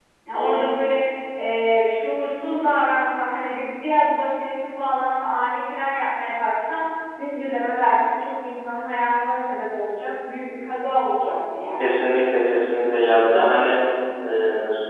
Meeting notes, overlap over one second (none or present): none